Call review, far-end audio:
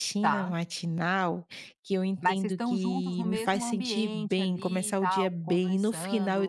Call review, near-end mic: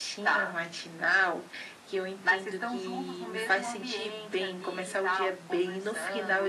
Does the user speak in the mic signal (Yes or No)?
No